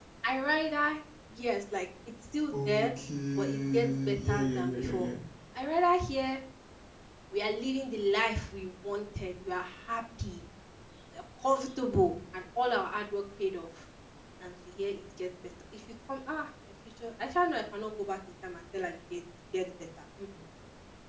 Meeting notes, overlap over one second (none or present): present